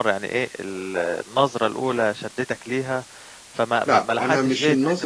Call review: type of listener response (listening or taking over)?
taking over